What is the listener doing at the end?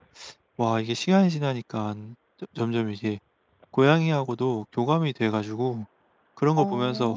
listening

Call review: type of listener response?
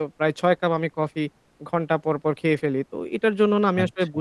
listening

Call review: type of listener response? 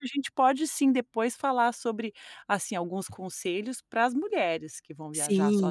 taking over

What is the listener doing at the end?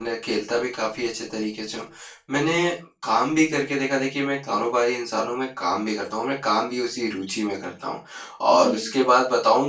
listening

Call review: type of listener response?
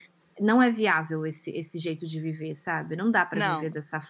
listening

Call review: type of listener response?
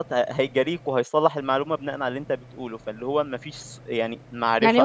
taking over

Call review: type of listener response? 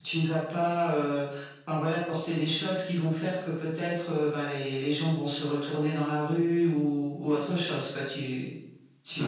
listening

